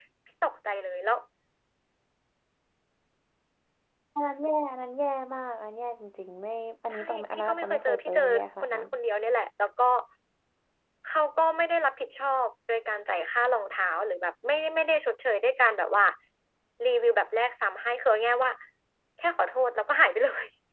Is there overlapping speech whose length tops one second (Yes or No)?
Yes